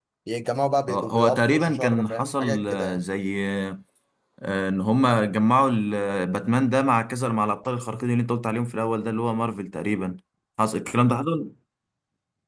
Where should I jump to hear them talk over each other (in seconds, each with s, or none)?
0.9 s